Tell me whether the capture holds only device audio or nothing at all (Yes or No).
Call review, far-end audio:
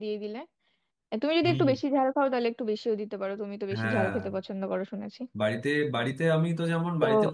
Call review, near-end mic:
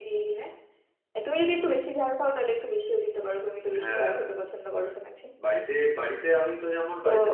Yes